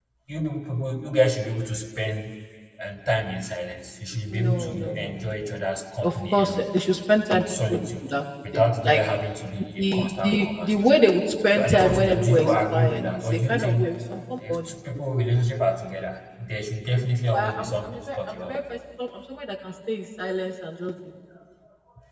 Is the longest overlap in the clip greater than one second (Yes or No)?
Yes